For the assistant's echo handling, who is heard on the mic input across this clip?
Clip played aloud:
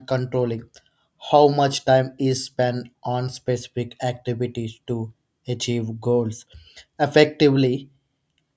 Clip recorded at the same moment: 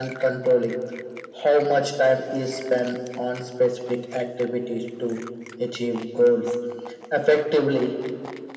echo only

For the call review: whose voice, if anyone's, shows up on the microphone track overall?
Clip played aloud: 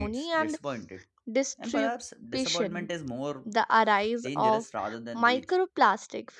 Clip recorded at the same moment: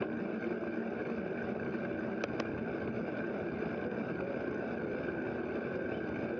neither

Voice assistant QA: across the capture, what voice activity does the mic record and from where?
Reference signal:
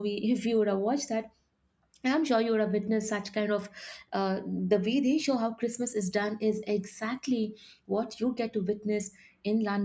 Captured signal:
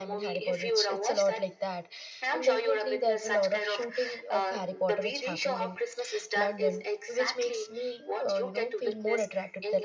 both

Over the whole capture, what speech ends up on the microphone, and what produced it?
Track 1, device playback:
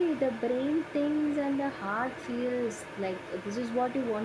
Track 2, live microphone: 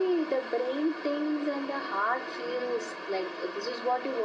echo only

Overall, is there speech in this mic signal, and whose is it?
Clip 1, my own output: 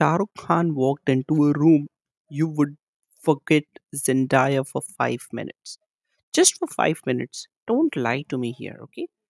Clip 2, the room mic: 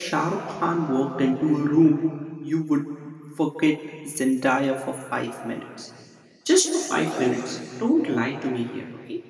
echo only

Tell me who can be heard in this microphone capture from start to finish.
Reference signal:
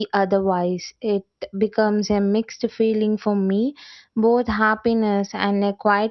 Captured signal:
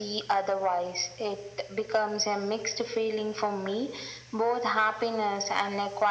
echo only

